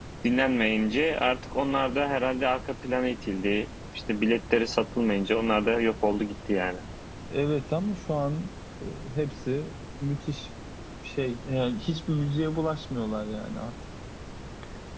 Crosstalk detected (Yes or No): No